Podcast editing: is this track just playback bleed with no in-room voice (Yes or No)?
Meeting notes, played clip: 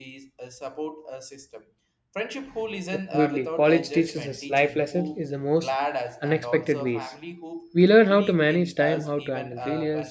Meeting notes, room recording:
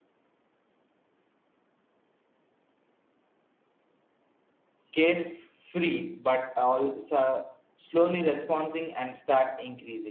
No